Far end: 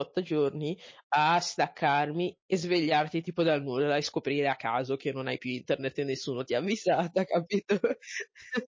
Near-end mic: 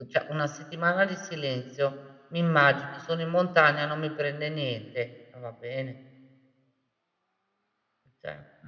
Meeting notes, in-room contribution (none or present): present